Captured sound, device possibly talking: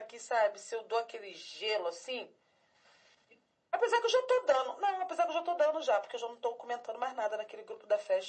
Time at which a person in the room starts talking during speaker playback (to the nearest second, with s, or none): none